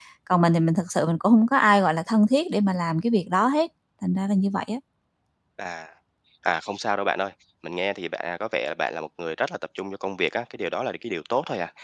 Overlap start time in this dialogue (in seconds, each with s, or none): none